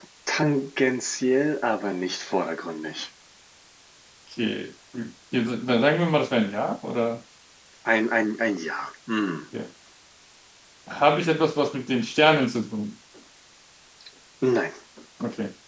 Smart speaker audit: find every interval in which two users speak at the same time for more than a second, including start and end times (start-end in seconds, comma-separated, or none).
none